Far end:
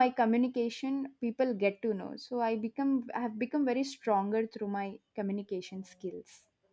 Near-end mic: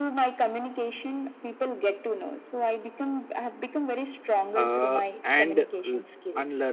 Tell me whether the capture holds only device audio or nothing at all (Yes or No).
No